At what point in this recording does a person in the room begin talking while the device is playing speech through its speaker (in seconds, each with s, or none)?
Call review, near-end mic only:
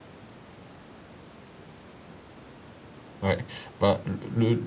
3.2 s